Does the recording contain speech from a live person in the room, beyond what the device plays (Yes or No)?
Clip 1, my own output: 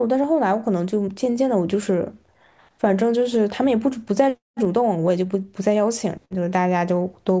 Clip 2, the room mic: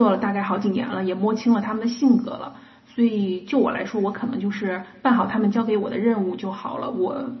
Yes